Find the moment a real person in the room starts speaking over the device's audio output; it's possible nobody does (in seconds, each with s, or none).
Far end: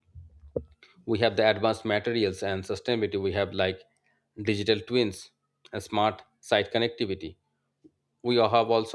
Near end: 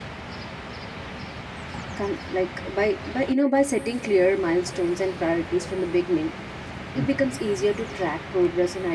2.0 s